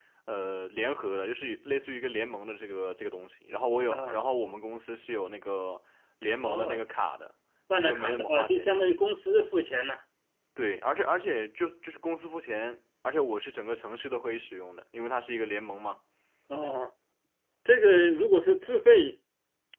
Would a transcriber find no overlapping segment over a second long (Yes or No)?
No